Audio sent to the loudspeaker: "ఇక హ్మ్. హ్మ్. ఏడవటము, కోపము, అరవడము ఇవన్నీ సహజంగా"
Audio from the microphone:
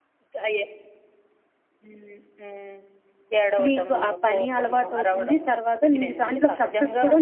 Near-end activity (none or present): present